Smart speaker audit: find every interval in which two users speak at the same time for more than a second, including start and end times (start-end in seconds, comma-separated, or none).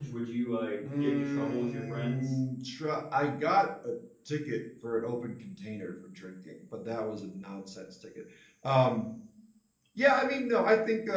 1.0-2.4